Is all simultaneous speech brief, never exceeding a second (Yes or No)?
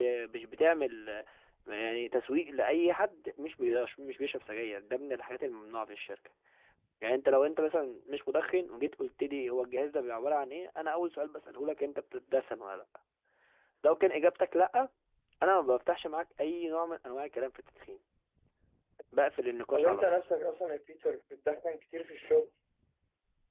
Yes